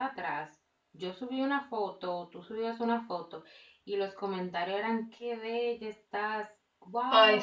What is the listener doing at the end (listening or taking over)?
listening